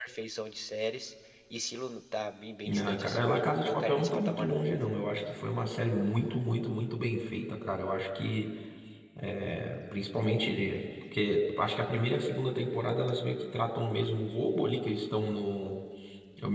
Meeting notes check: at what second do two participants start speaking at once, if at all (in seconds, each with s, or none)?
2.6 s